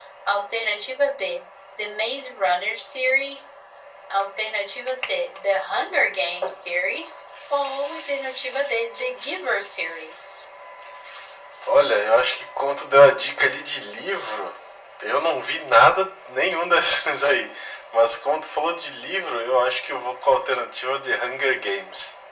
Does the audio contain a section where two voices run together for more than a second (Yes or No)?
No